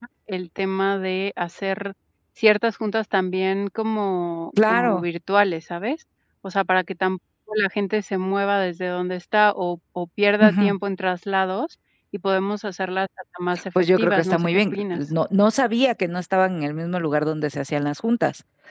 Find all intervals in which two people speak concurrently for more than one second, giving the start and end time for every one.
13.8-15.0

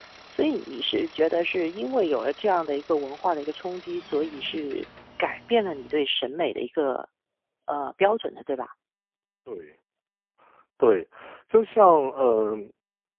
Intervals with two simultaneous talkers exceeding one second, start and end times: none

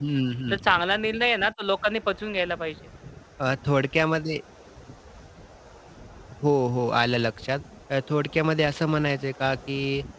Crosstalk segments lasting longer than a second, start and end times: none

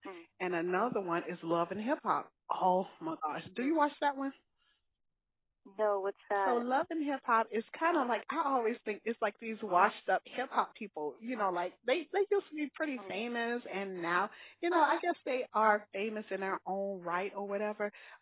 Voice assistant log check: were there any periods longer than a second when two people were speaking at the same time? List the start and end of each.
none

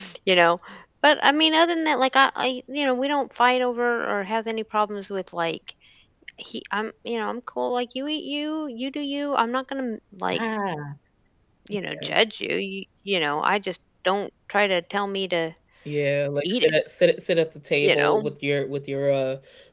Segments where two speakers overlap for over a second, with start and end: none

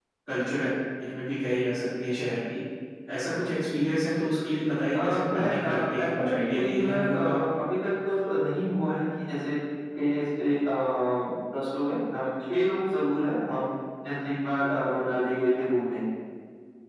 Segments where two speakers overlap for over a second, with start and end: 5.0-7.4

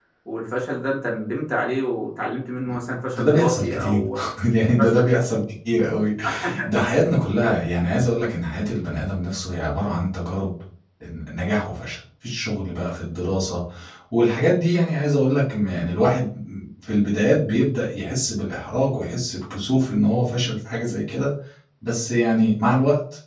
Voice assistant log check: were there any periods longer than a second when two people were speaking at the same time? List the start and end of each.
2.6-4.0

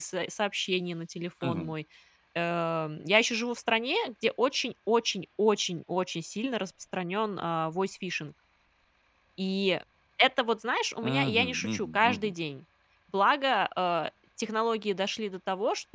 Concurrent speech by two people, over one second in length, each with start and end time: 11.1-12.3

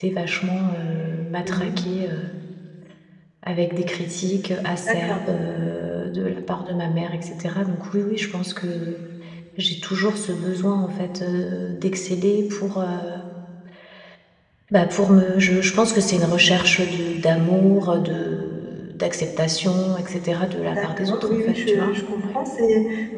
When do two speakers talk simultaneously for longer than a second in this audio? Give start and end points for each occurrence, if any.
20.7-22.4

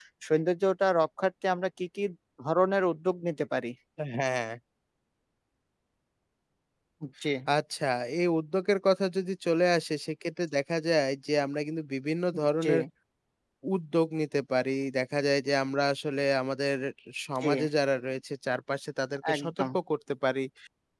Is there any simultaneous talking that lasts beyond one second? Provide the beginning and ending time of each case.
none

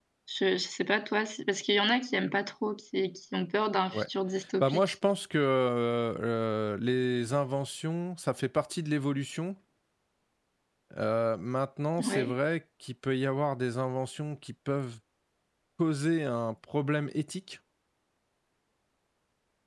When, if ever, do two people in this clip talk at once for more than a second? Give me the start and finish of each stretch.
none

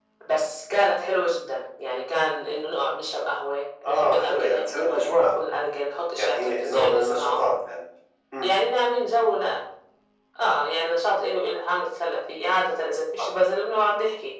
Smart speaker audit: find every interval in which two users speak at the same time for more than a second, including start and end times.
3.8-5.4, 6.2-7.4

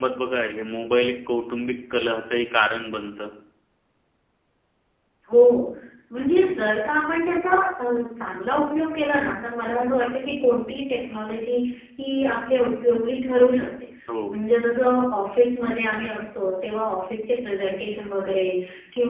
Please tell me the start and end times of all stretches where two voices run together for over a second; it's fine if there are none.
none

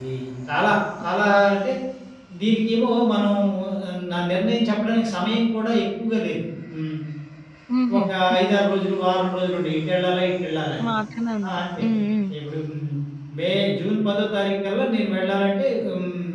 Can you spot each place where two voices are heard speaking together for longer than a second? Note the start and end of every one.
none

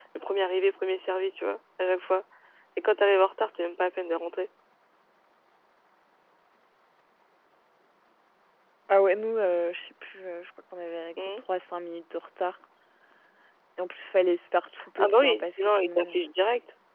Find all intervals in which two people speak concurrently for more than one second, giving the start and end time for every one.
15.0-16.2

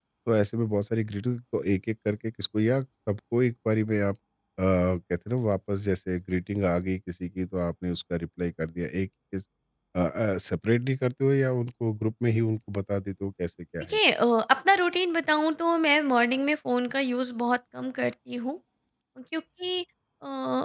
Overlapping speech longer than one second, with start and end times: none

